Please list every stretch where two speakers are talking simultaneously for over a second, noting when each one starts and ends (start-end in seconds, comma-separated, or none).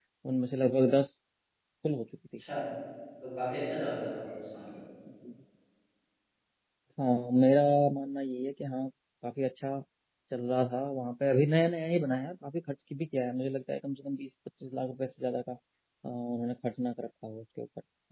none